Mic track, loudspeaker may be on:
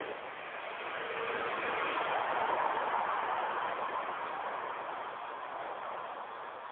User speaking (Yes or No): No